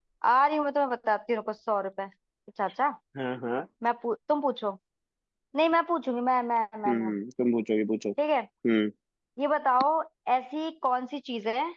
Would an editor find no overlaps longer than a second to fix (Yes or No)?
Yes